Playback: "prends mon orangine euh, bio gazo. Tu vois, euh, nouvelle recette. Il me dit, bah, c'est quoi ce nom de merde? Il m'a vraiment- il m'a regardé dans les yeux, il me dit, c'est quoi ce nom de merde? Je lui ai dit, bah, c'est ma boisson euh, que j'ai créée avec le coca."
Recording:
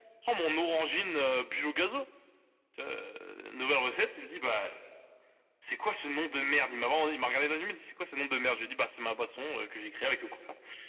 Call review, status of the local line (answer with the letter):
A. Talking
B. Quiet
B